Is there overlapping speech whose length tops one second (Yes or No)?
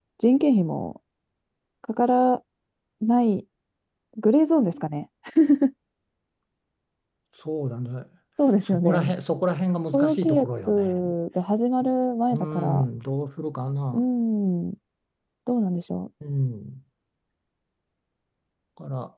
Yes